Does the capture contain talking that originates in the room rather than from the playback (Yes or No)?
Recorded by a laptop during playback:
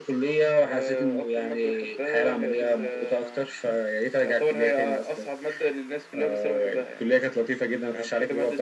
Yes